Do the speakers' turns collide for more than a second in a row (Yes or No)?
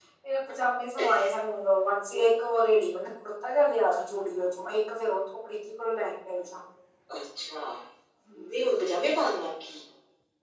No